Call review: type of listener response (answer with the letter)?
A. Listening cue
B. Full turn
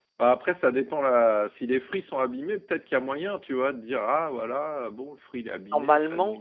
B